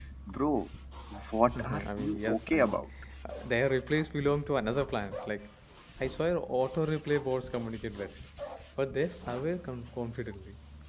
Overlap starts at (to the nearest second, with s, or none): 2 s